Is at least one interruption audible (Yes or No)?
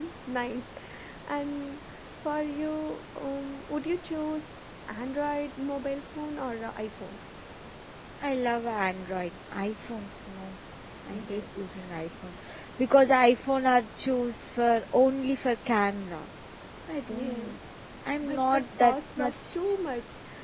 Yes